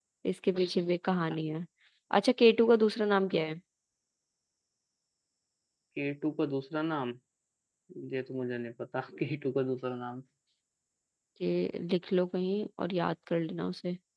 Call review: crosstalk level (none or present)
none